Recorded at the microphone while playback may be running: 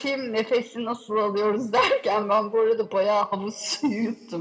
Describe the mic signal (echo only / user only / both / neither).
echo only